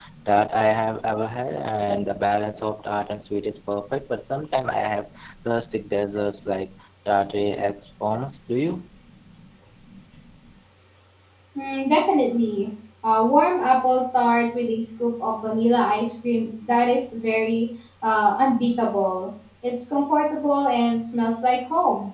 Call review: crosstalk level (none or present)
none